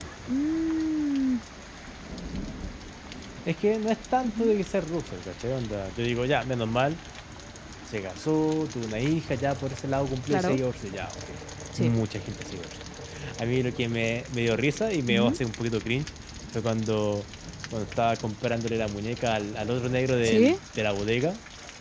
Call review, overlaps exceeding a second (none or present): none